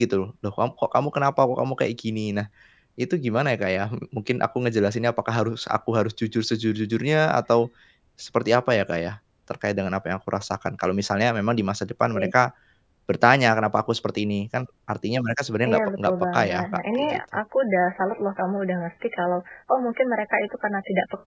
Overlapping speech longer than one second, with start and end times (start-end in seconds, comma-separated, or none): 15.7-17.2